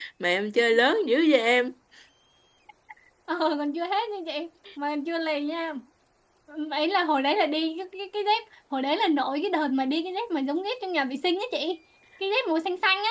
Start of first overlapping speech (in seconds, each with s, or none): none